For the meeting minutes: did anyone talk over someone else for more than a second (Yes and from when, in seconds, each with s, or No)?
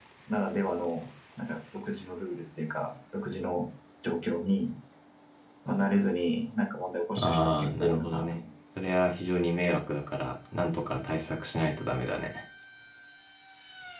Yes, from 7.2 s